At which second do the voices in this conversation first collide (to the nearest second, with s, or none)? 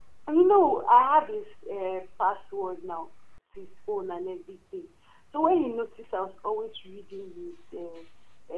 none